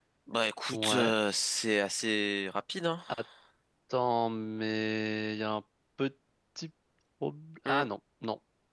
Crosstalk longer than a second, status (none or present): none